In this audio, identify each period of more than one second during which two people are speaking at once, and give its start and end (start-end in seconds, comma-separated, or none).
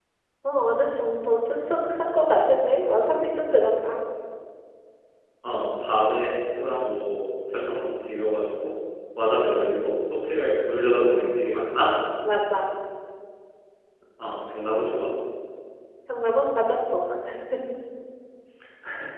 none